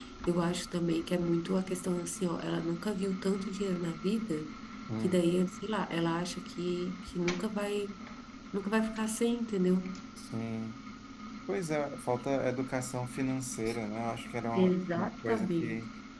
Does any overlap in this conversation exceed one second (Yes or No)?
Yes